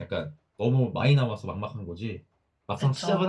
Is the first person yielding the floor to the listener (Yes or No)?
No